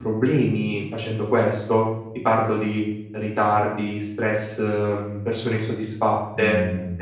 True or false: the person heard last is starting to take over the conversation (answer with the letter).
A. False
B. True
A